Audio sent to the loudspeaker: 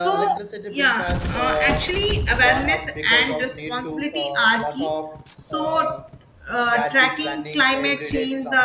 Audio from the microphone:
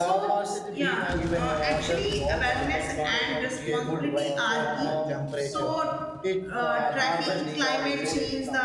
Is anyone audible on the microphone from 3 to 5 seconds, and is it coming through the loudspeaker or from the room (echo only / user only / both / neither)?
both